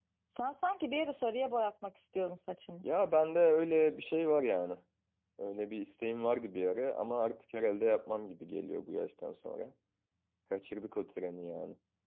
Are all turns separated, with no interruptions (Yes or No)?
Yes